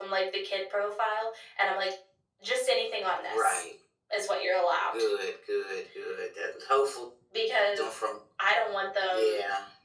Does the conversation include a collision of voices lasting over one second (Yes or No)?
No